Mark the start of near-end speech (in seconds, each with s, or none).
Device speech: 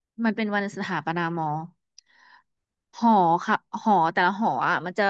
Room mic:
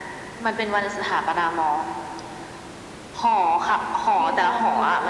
4.2 s